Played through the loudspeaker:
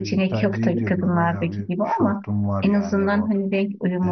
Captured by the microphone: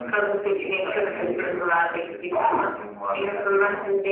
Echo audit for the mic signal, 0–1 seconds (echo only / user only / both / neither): echo only